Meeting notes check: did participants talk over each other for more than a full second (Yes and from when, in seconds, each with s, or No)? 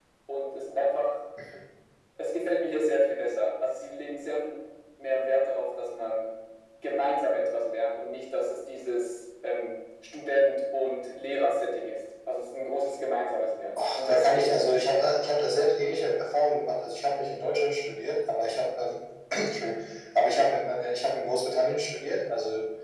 Yes, from 13.8 s